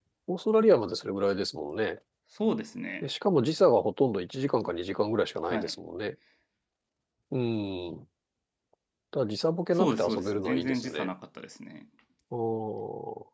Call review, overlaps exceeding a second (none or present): present